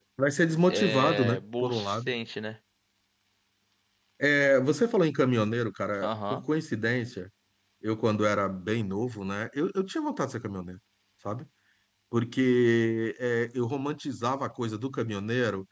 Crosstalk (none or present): present